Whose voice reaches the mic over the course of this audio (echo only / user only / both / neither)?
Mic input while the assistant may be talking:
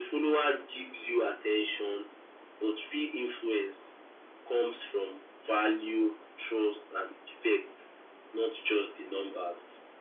echo only